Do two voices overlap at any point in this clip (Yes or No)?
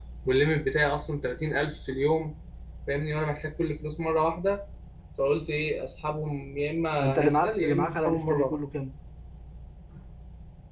Yes